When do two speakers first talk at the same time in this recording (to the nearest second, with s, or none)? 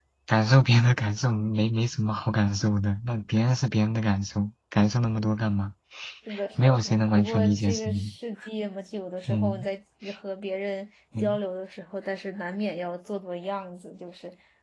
7 s